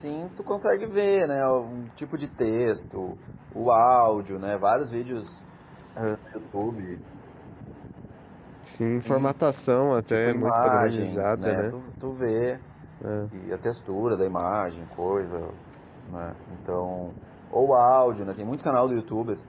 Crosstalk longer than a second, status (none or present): present